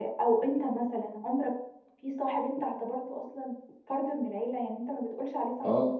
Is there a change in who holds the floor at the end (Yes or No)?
Yes